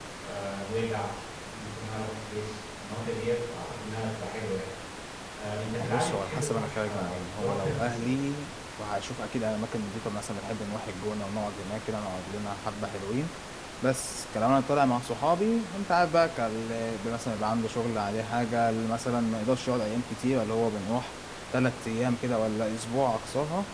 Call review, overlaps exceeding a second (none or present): present